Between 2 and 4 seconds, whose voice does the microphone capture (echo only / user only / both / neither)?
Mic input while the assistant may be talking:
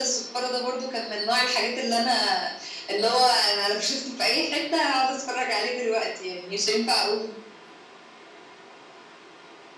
echo only